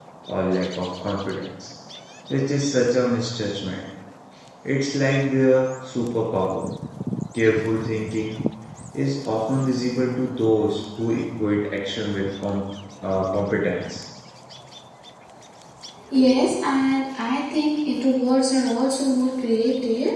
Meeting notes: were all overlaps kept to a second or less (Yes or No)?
Yes